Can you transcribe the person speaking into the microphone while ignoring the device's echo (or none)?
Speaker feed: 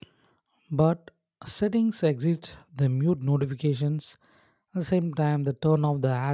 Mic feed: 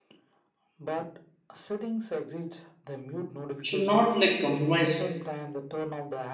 should not like compromise